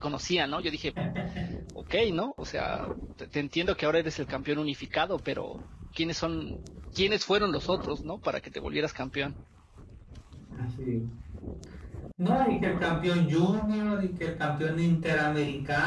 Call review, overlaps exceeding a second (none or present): none